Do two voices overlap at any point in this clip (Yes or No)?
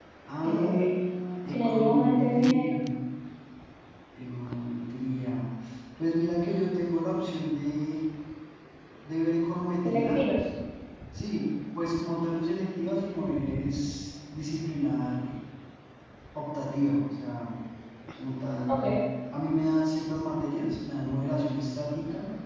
Yes